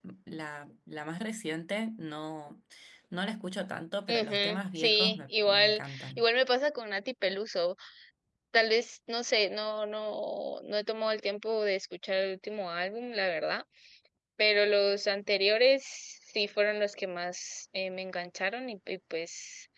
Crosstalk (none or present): present